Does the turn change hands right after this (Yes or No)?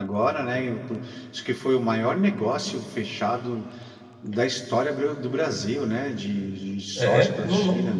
Yes